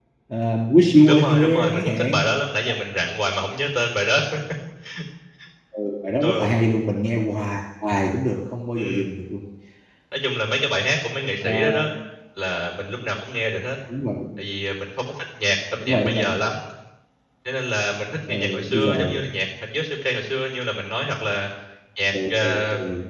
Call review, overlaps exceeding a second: present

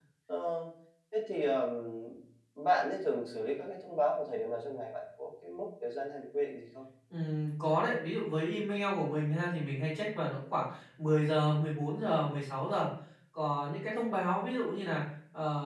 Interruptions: none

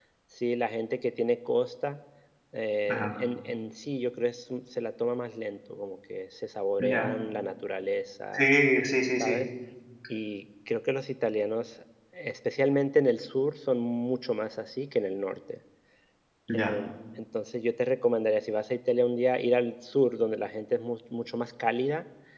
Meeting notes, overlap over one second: none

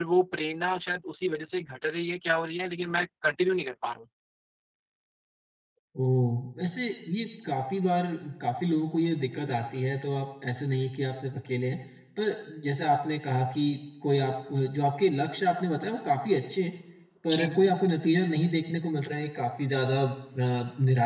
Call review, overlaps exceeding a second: none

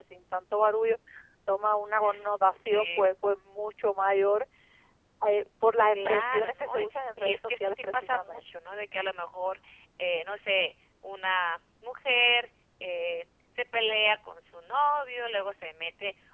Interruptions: present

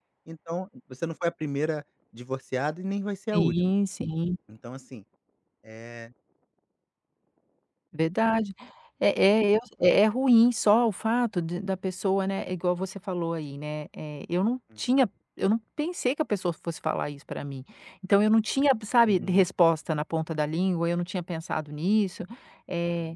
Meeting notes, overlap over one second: none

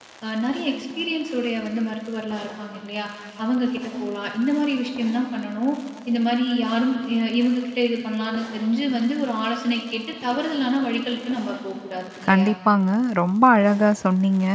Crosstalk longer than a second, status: none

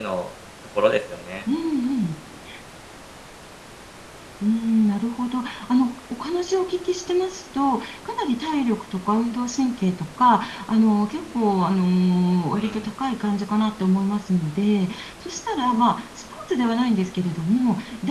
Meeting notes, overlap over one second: none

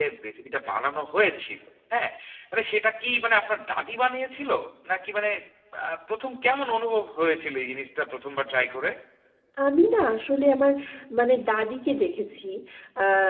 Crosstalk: none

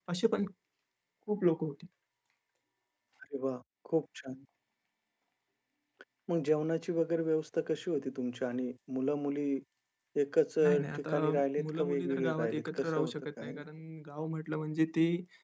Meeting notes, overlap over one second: present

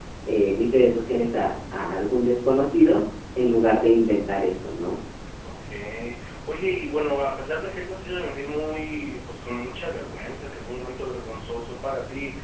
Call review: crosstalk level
none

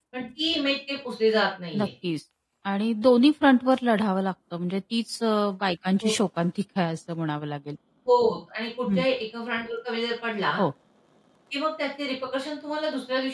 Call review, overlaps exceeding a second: none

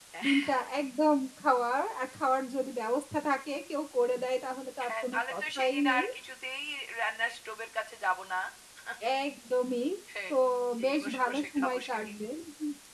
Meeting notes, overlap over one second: present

